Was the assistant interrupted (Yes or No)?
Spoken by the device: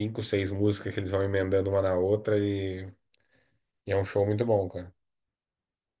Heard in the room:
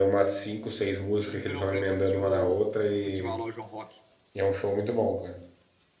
Yes